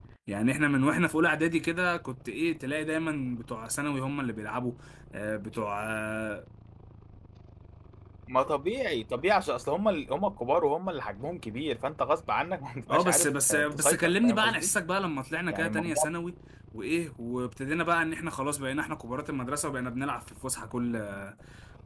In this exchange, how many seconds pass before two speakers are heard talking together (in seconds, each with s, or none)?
12.9 s